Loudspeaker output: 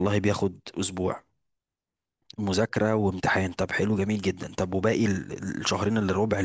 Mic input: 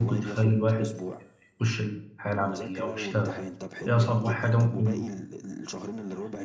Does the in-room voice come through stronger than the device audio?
Yes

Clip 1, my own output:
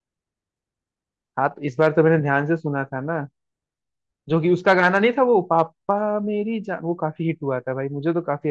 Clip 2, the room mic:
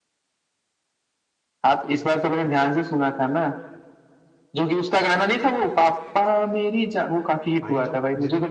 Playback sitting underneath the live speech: No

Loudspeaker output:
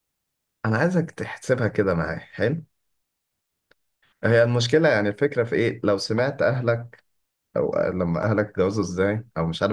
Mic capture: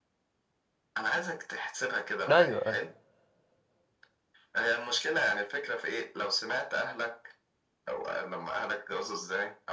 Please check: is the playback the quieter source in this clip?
Yes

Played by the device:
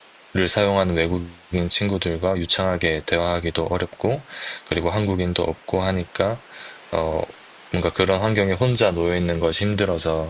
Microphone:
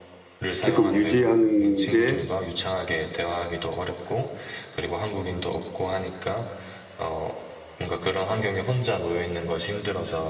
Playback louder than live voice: No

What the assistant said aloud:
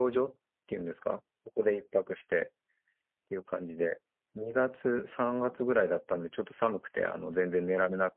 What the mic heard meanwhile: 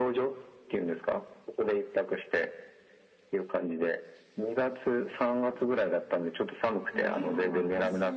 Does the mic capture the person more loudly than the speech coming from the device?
No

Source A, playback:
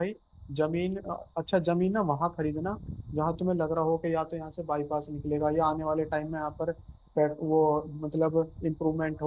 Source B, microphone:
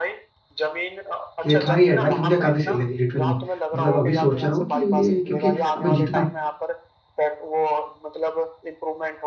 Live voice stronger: Yes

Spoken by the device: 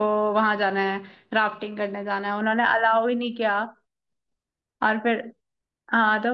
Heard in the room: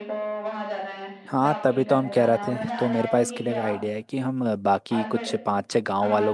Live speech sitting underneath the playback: No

